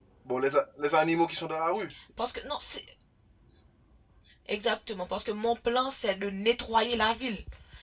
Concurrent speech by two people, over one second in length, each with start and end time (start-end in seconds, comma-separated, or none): none